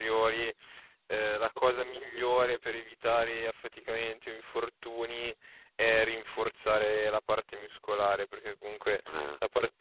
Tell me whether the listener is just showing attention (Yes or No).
Yes